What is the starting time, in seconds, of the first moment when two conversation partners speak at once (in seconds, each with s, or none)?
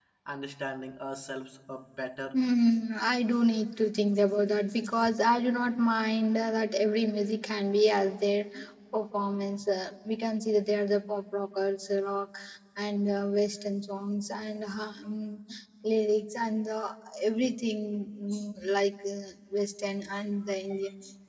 none